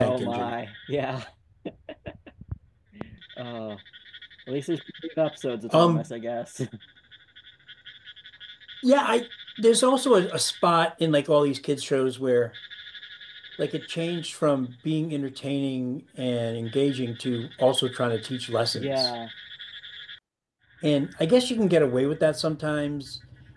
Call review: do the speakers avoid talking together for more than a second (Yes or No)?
Yes